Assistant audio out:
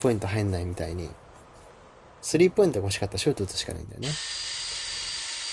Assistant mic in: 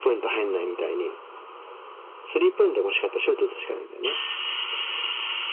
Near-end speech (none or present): none